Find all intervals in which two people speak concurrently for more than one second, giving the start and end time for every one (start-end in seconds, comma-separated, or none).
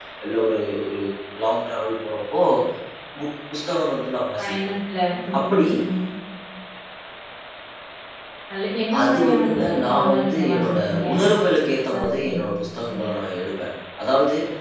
9.0-11.0